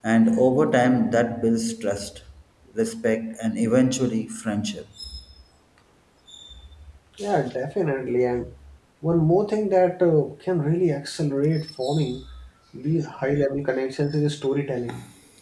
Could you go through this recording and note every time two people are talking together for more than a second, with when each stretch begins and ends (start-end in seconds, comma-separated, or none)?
none